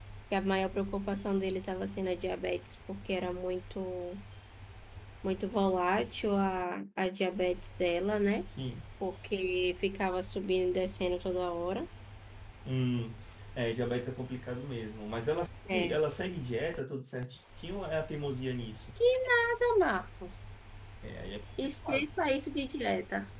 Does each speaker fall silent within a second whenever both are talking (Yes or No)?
Yes